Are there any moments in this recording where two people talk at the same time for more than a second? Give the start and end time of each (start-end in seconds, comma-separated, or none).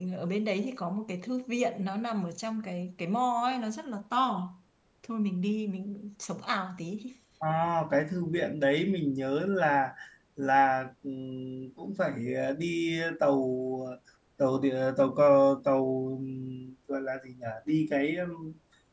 none